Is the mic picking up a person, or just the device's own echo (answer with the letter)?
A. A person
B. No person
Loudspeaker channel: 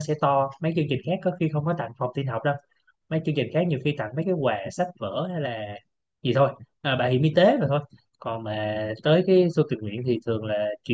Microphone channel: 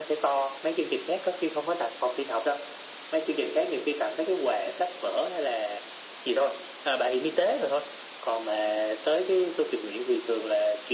B